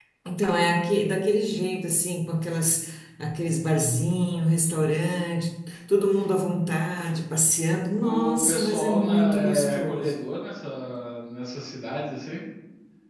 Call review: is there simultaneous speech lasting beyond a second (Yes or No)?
Yes